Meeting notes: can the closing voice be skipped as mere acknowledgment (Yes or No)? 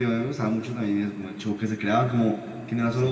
Yes